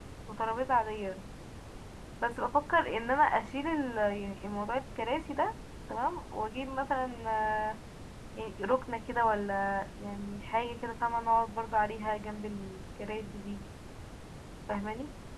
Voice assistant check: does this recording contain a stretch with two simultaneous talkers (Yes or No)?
No